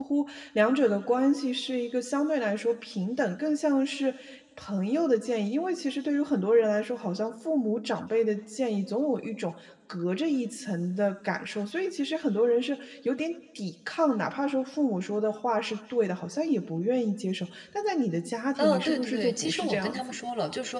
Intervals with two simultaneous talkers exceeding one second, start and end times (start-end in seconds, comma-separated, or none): 18.6-20.2